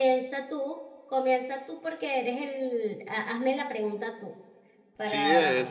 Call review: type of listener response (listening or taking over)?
taking over